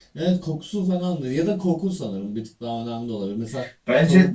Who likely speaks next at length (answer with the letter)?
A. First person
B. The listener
A